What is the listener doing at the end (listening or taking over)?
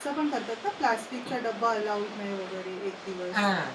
taking over